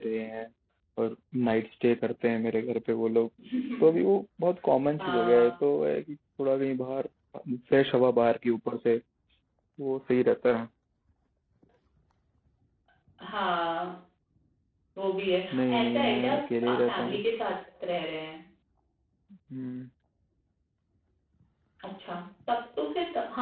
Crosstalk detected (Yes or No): Yes